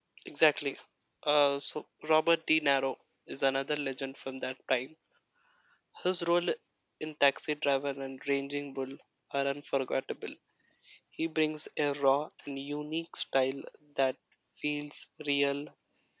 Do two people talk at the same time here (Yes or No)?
No